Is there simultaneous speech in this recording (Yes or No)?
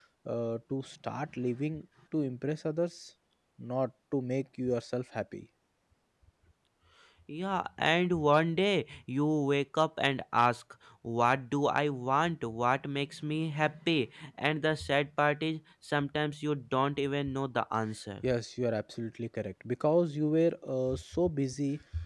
No